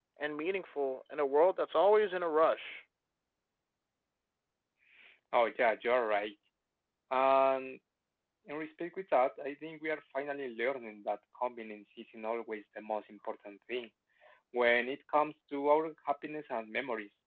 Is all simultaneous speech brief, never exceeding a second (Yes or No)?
Yes